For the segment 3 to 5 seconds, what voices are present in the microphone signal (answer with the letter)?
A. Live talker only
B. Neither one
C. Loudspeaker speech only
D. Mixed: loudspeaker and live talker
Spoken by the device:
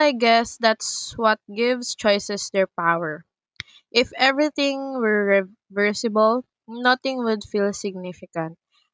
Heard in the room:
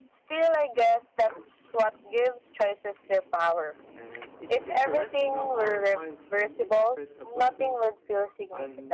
D